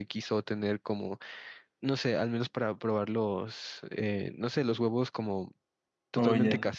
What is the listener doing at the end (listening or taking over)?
listening